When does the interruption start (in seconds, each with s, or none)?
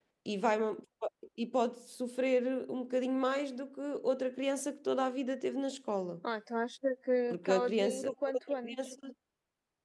7.3 s